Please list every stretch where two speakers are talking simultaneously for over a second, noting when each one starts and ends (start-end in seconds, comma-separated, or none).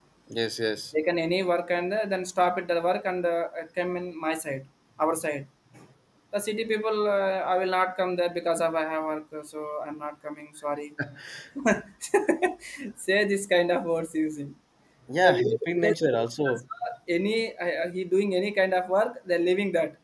15.2-16.6